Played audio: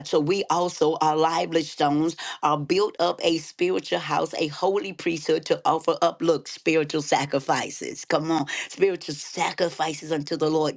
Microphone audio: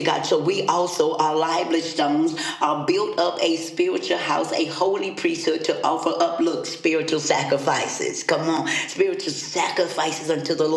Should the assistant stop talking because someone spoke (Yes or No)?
No